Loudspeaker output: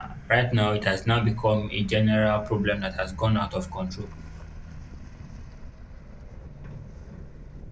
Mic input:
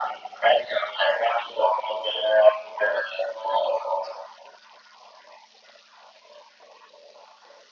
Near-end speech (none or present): none